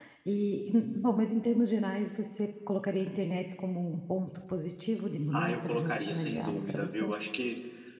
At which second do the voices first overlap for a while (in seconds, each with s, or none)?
5.3 s